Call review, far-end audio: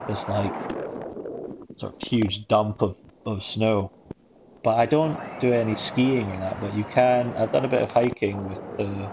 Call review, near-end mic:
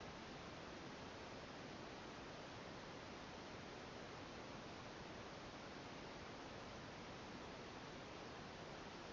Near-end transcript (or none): none